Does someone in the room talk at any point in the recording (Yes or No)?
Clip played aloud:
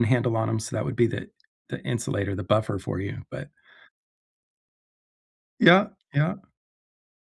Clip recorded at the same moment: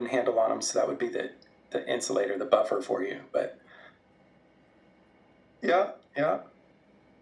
No